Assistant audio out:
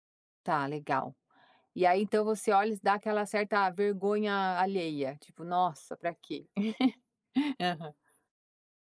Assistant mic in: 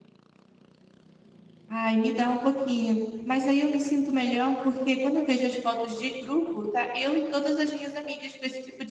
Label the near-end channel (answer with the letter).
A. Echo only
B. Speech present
B